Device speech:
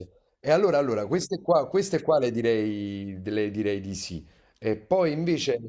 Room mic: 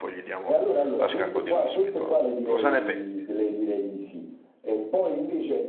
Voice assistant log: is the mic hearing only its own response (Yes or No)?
No